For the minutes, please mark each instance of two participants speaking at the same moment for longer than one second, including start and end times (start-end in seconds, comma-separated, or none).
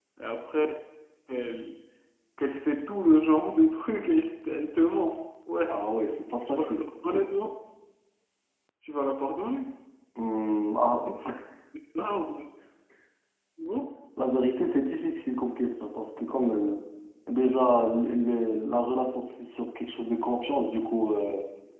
none